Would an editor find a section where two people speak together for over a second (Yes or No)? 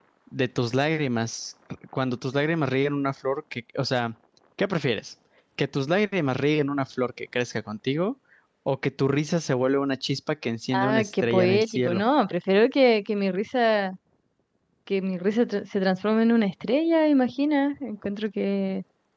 Yes